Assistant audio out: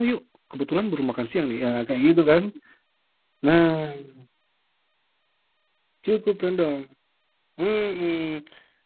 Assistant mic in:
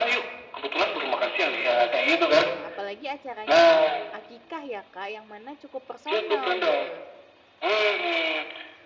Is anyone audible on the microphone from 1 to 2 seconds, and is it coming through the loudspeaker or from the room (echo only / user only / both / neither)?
both